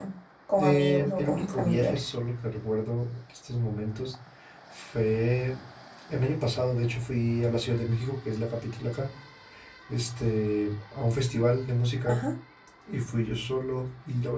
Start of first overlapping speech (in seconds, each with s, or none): 0.6 s